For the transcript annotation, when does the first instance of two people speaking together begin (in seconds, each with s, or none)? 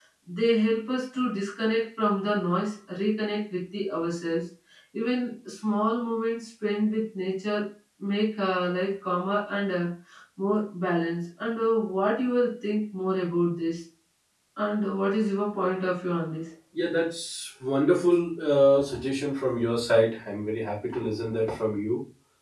none